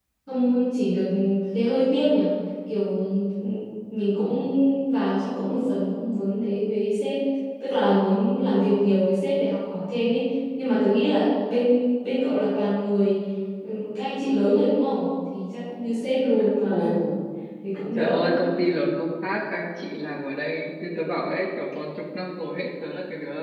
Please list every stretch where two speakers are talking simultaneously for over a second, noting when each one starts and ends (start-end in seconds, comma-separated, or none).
none